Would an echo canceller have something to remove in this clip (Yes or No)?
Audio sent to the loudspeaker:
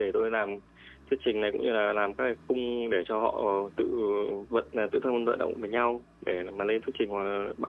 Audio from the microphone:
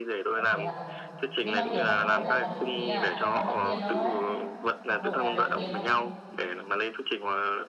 Yes